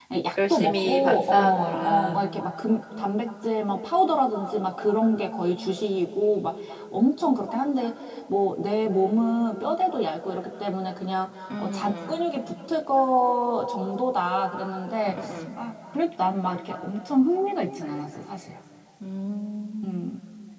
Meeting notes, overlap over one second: present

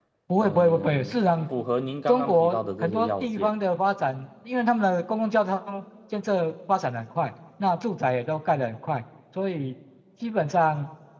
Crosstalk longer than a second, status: present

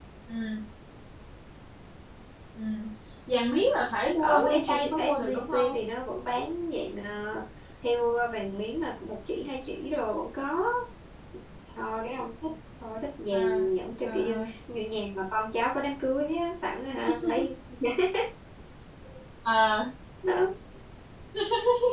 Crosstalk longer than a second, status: present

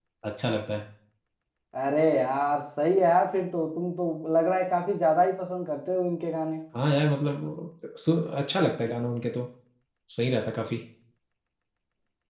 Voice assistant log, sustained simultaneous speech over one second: none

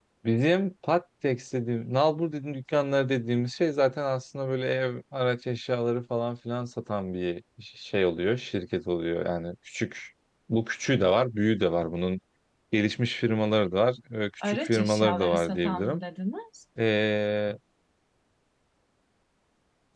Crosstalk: present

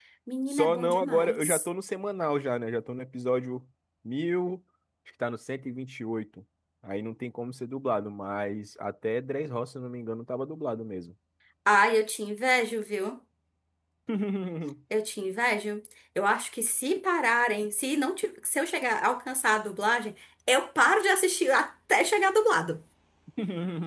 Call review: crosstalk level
present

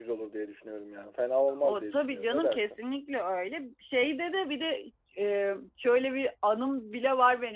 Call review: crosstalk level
present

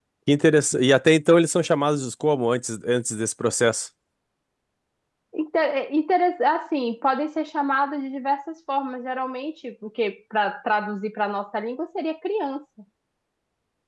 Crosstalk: none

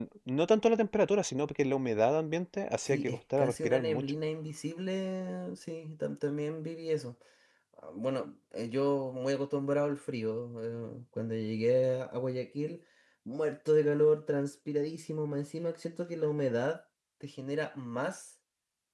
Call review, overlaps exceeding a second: present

